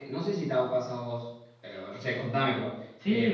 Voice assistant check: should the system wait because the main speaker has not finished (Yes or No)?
No